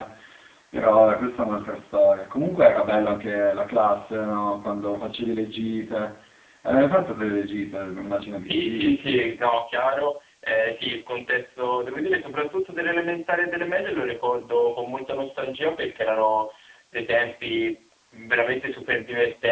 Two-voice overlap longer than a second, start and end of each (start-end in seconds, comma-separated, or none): none